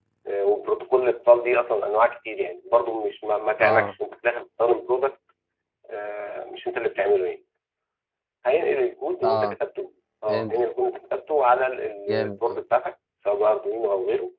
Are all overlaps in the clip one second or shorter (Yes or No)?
Yes